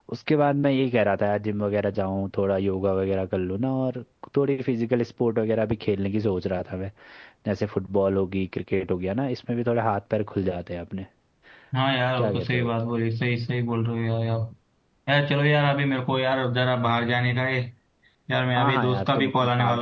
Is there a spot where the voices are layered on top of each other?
Yes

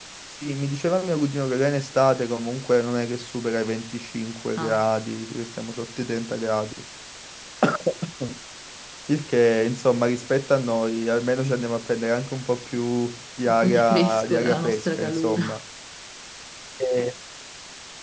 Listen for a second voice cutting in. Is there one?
Yes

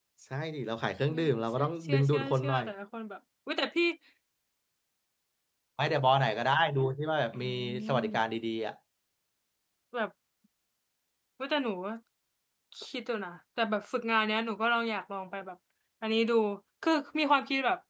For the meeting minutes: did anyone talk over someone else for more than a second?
Yes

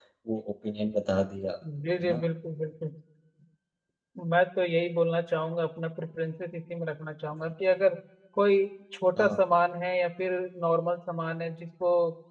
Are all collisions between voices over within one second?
Yes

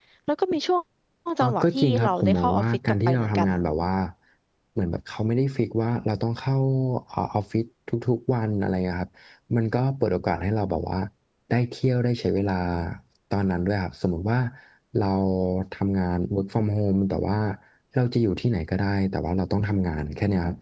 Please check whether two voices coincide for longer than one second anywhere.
Yes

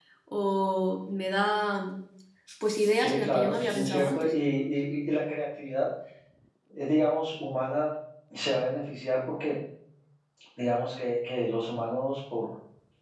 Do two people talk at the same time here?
Yes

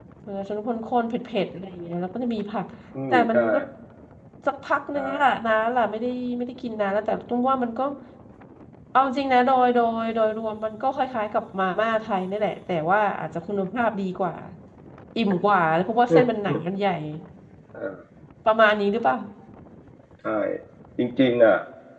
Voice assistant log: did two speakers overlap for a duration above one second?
No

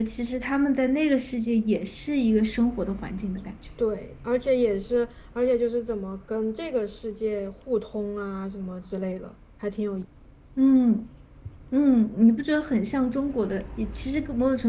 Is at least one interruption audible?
No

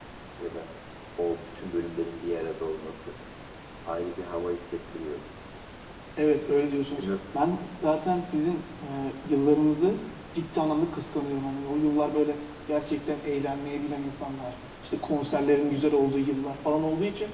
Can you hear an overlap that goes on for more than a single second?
No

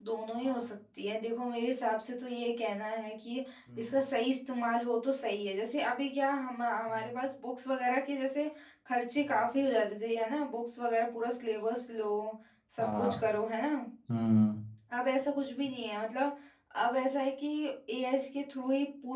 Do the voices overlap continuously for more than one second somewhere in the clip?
No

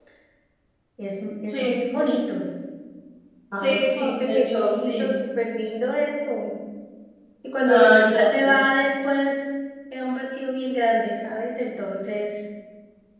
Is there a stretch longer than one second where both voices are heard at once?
Yes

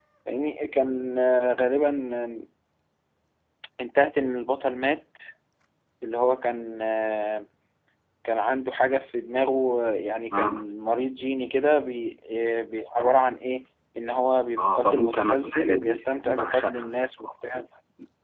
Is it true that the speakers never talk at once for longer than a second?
No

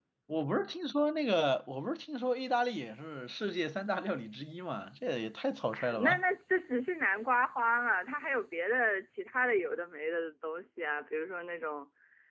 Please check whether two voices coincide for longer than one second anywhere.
No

